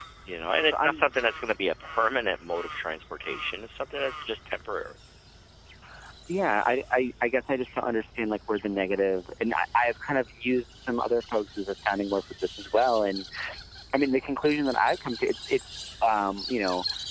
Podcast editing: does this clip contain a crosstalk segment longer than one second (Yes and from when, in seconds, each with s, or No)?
No